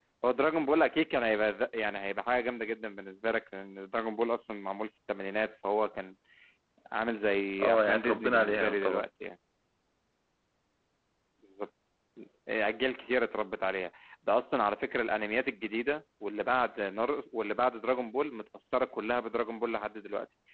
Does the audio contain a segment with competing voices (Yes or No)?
Yes